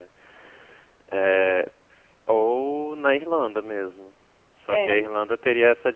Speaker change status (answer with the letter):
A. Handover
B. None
B